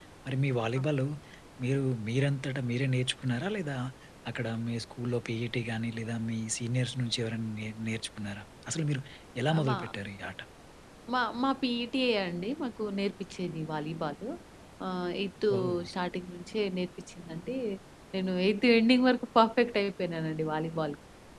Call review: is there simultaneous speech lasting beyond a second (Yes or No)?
No